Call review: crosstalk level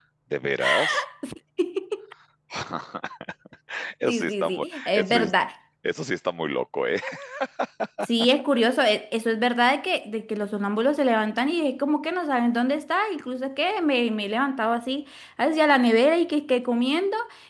present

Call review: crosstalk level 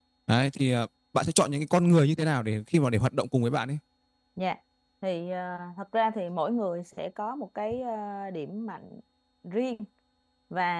none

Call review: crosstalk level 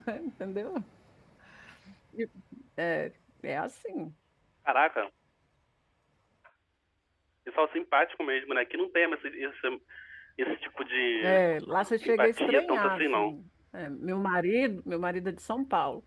present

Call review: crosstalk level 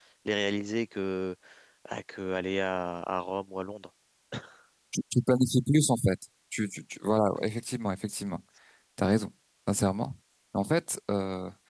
none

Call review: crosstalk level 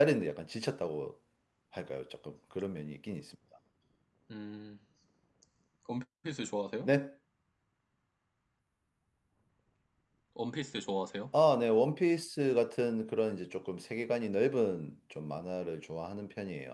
none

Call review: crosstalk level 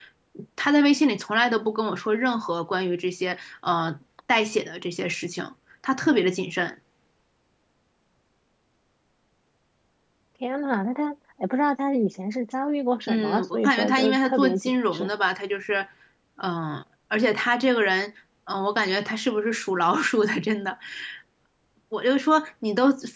present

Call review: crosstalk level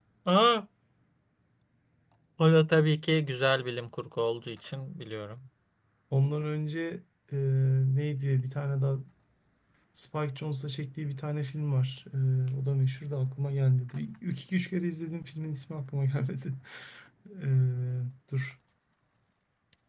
none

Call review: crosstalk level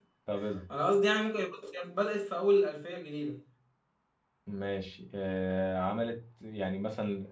none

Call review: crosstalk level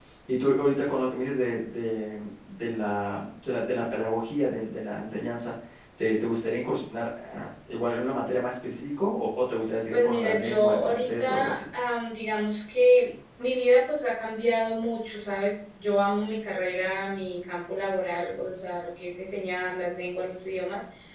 present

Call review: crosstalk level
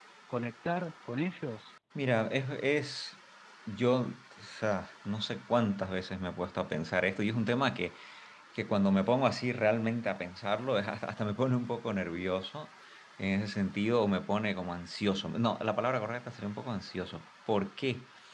none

